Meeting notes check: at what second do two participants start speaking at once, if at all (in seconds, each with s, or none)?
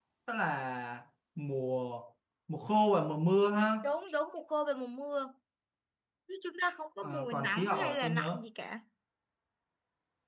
7.0 s